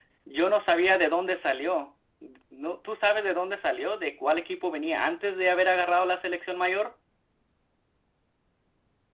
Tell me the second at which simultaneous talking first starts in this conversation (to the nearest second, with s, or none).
none